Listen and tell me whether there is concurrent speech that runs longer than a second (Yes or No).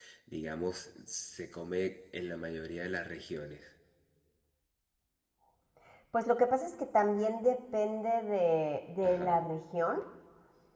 No